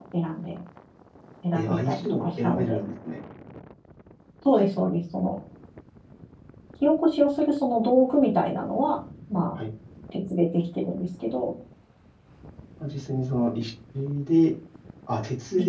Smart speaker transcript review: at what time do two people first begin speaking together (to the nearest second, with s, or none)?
2 s